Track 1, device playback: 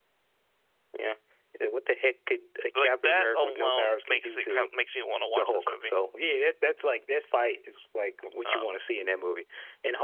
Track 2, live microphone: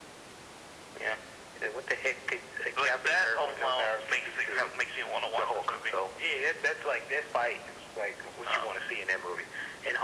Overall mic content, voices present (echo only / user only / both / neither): echo only